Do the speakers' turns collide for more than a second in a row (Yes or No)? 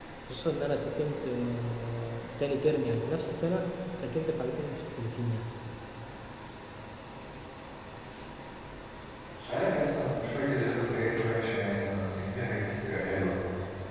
No